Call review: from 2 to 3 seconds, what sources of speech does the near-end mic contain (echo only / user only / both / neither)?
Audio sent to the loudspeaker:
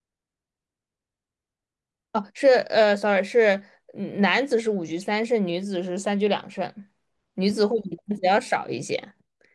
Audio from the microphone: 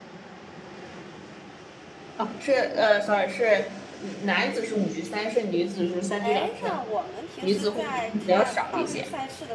echo only